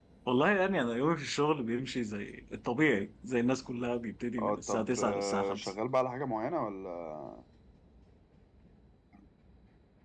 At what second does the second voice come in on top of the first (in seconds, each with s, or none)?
4.4 s